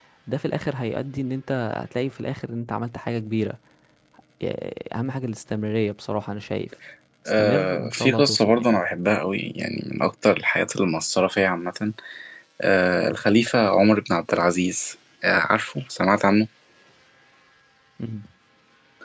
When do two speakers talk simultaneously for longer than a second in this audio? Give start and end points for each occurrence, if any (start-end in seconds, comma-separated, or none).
7.4-8.8